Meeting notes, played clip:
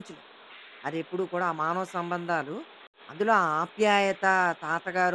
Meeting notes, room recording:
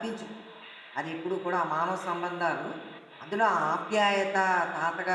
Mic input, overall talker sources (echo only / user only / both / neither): echo only